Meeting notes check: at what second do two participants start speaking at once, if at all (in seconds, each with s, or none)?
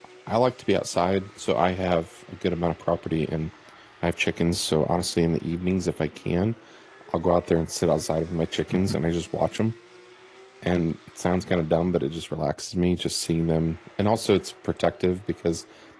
none